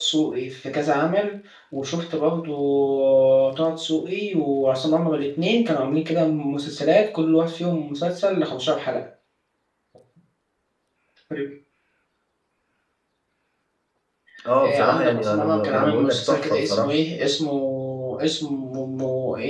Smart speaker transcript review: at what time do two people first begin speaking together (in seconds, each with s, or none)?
14.6 s